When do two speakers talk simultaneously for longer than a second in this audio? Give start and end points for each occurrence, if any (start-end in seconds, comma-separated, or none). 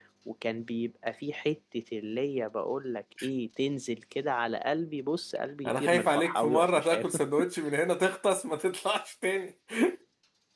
5.7-7.1